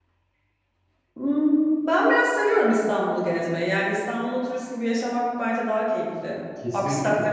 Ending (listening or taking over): listening